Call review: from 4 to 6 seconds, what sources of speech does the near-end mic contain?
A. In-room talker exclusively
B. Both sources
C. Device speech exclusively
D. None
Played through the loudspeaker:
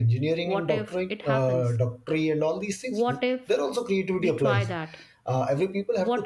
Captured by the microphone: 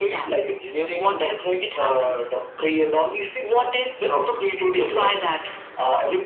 C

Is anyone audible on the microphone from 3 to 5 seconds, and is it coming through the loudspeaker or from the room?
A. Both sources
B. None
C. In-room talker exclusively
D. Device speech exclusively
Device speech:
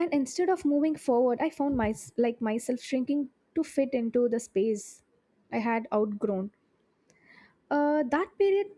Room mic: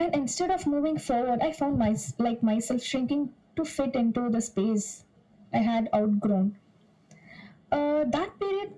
D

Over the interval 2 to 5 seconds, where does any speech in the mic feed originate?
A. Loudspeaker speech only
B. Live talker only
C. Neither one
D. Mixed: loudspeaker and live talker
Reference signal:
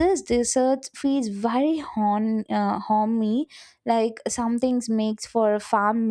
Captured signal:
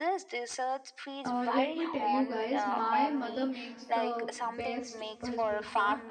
D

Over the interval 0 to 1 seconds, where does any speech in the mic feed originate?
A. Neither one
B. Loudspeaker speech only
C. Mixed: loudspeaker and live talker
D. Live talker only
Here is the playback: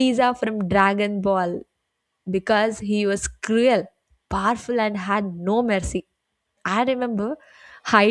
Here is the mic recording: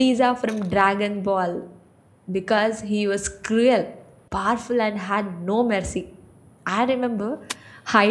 B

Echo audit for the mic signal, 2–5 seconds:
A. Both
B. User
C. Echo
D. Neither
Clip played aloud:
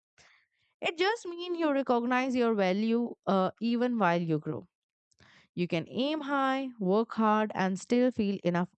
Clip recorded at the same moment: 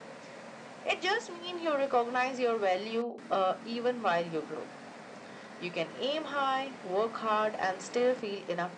C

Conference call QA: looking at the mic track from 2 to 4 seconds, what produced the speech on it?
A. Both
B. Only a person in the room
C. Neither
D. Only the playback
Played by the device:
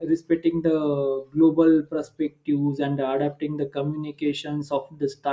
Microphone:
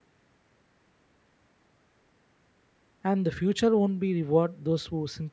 B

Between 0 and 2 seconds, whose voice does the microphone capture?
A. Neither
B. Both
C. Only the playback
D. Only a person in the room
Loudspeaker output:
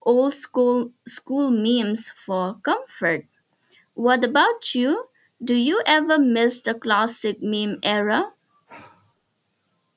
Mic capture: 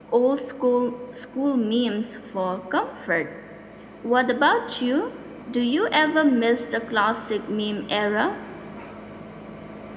C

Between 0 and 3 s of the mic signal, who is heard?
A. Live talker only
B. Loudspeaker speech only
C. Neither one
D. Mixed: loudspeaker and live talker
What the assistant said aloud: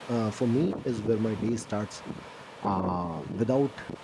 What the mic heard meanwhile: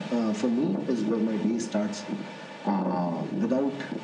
B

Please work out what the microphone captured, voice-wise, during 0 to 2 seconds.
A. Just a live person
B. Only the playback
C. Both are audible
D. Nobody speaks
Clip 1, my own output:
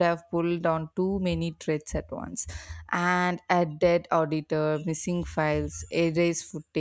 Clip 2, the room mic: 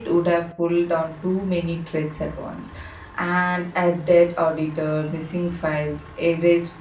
B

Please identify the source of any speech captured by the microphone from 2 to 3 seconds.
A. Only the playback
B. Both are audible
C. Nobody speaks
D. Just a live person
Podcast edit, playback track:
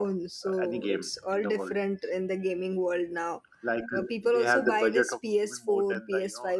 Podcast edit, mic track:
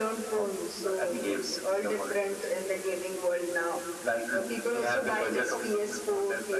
A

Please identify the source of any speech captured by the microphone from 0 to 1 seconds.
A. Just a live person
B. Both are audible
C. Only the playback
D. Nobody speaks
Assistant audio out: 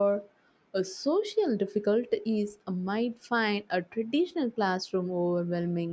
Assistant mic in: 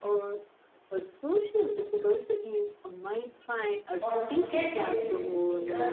C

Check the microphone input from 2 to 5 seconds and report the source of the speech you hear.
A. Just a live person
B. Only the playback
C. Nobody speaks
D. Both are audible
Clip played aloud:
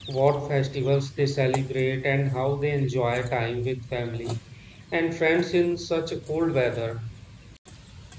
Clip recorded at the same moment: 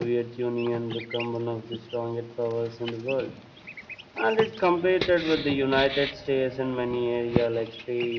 A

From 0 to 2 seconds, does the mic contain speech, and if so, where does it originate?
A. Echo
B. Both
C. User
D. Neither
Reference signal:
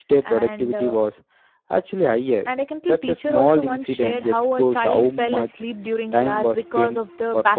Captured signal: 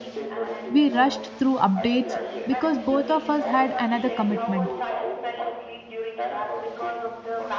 B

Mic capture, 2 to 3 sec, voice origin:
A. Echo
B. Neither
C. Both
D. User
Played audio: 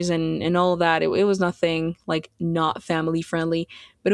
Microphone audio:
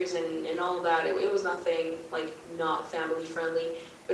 A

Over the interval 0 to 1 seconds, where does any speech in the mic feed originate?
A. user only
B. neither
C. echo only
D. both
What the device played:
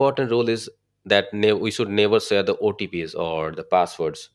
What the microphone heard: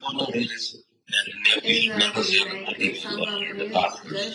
C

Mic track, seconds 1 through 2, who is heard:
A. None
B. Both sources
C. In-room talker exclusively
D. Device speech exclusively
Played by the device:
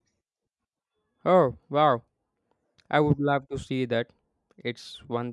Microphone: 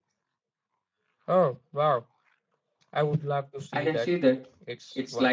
D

